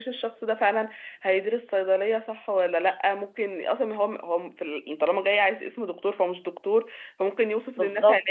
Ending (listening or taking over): listening